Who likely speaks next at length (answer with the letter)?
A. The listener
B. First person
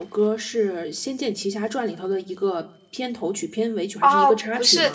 A